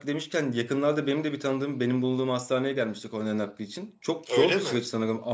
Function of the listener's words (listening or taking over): listening